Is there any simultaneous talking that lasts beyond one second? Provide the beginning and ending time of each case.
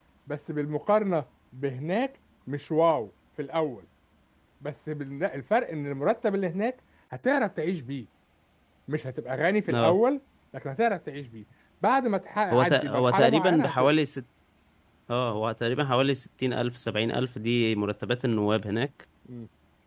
12.5-13.9

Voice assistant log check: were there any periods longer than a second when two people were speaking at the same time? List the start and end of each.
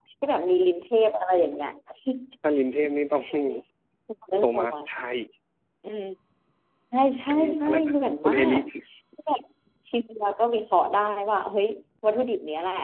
7.3-8.6

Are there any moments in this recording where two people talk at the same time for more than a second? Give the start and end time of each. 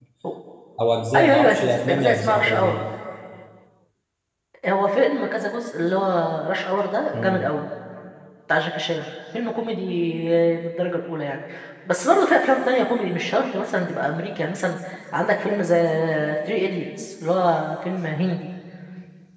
1.1-2.8

